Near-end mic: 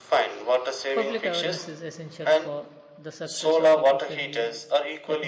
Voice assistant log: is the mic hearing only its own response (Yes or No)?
No